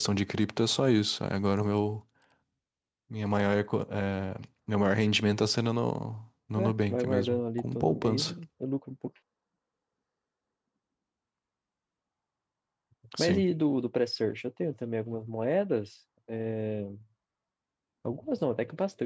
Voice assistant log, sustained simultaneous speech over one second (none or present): present